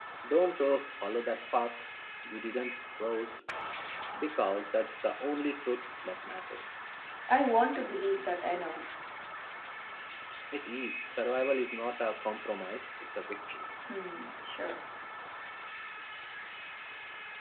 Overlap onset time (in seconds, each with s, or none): none